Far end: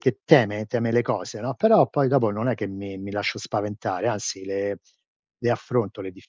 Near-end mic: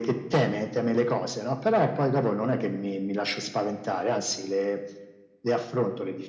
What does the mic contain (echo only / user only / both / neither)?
echo only